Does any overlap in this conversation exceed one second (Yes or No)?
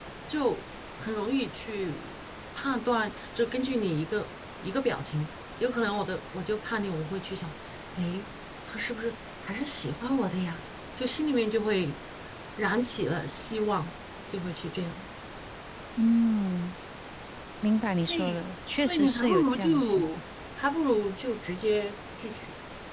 Yes